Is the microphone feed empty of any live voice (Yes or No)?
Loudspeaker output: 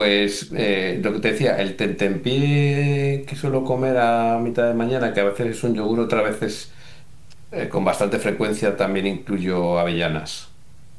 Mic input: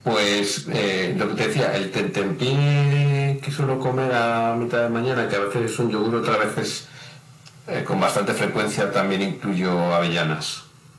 Yes